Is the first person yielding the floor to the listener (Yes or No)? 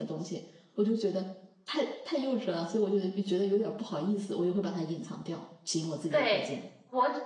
Yes